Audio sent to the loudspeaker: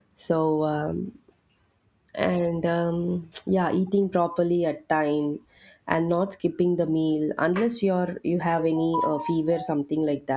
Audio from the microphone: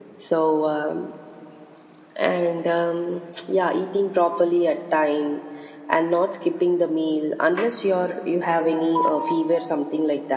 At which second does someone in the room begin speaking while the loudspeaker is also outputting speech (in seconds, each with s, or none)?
none